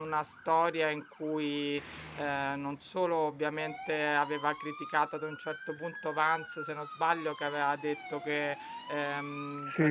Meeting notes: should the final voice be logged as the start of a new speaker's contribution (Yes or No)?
No